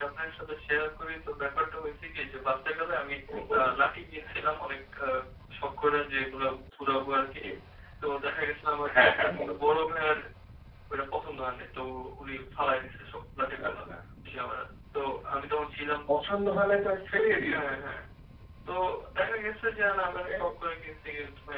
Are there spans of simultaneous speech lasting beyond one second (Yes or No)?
No